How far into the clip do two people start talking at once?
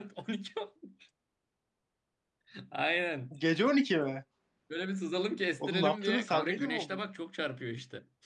5.6 s

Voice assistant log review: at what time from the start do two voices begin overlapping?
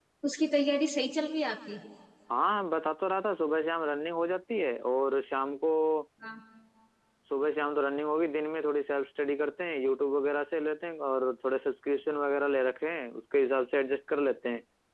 none

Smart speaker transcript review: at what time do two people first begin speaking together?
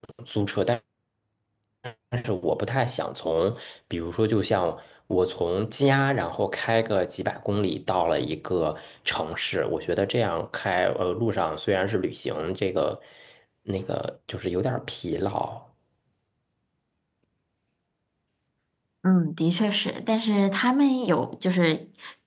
none

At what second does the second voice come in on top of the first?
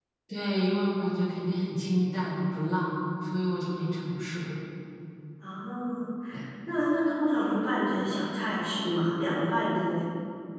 none

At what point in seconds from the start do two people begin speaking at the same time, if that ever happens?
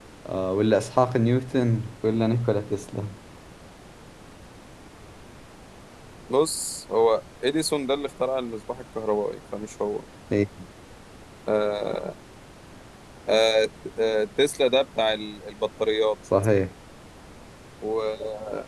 none

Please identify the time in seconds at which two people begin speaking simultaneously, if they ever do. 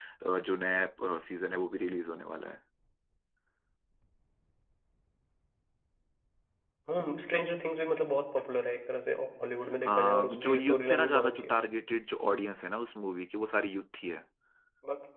9.8 s

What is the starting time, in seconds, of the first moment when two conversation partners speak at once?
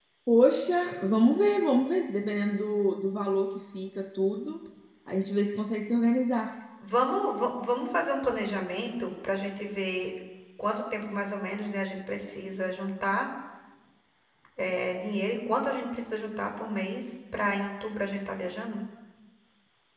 none

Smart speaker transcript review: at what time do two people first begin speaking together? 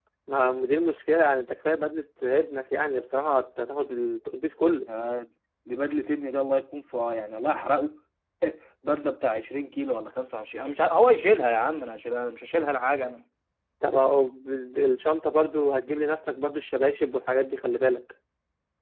none

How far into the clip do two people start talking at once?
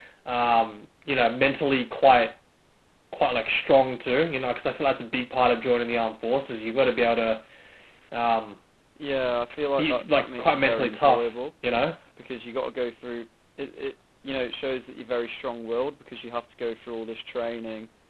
9.8 s

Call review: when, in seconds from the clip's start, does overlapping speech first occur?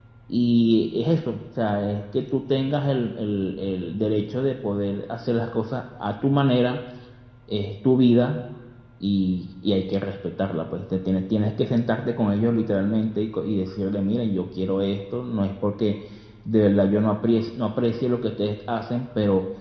none

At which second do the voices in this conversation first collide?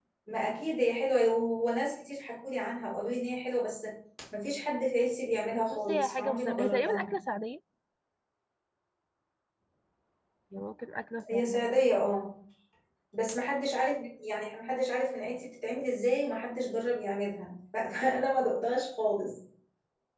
5.7 s

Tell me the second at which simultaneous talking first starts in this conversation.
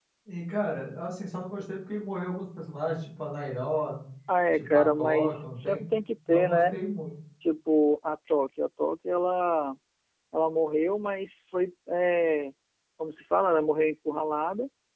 4.5 s

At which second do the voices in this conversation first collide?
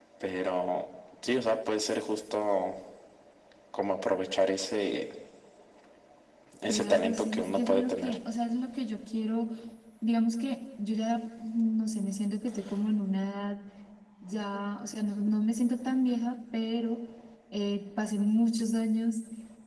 6.7 s

